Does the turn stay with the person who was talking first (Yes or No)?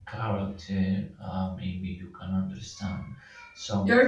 No